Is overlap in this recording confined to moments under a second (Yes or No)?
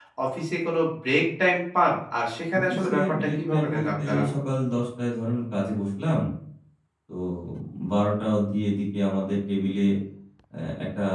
No